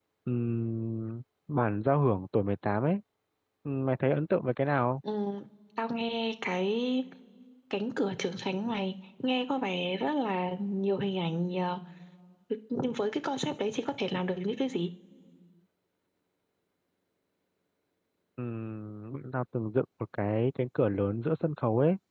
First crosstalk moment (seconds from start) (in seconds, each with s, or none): none